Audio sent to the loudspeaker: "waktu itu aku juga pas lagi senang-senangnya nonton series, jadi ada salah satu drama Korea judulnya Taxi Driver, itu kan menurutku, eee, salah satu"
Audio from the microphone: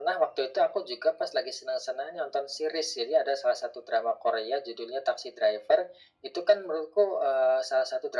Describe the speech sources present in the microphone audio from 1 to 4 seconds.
echo only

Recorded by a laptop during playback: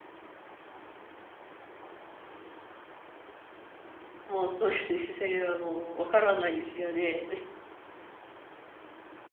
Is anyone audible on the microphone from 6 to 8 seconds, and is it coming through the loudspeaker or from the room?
user only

